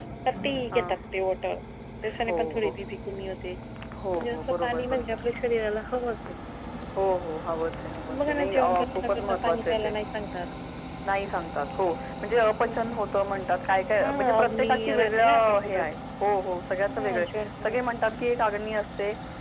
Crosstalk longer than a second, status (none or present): present